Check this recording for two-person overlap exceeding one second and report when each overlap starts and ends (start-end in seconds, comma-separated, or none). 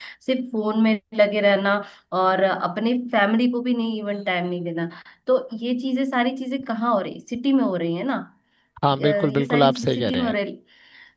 8.9-10.3